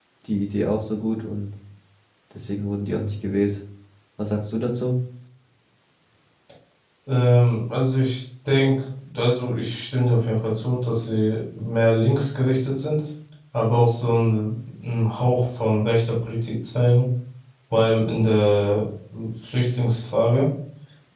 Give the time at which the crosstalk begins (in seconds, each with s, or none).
none